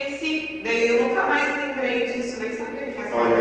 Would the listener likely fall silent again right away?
No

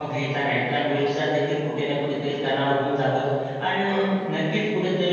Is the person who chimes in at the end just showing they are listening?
Yes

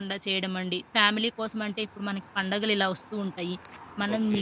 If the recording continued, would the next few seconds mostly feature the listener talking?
No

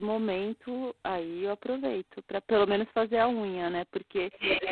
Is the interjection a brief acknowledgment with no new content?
Yes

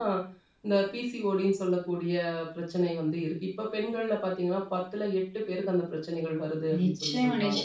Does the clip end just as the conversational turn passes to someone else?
Yes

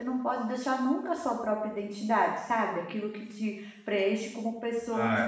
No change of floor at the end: No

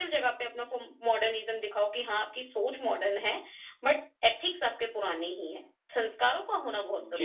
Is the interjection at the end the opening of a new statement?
Yes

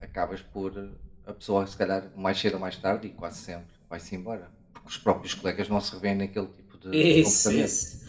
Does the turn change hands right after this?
Yes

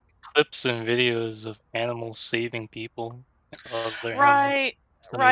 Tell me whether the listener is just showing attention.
No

